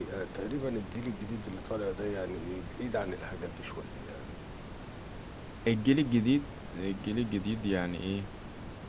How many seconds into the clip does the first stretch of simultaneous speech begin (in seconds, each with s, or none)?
none